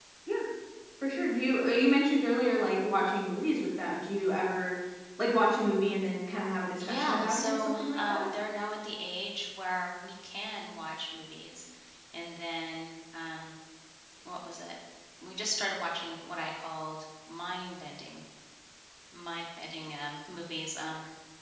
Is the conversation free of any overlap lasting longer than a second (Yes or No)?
No